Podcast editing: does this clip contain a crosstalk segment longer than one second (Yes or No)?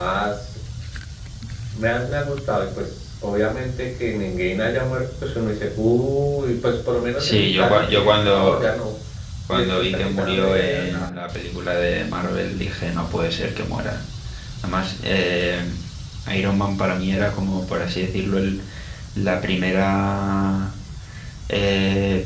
Yes